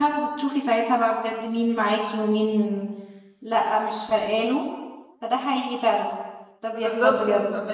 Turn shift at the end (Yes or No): Yes